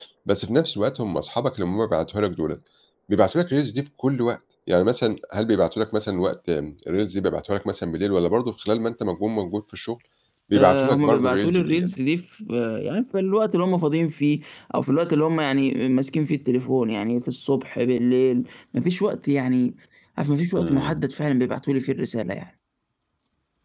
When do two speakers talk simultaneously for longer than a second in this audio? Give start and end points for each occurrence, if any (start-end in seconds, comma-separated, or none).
10.5-11.9